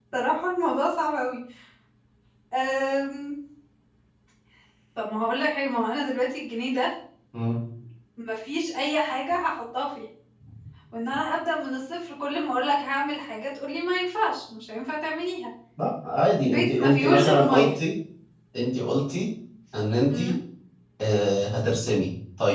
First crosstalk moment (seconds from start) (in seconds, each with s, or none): 16.4 s